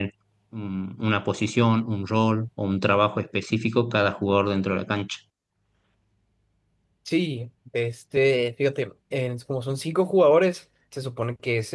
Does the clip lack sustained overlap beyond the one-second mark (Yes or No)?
Yes